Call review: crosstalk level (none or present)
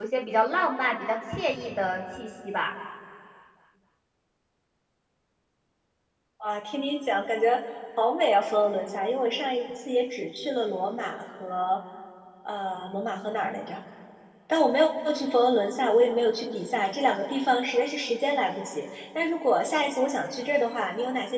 none